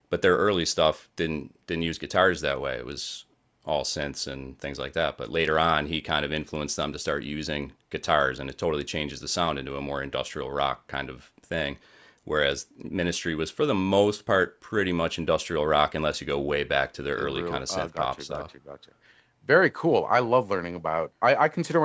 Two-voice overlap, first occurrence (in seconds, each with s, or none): 17.2 s